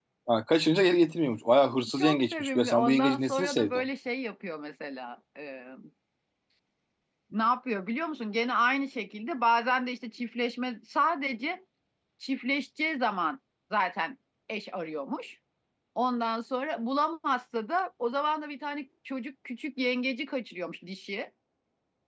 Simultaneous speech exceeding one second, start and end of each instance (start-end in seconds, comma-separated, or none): 2.0-3.8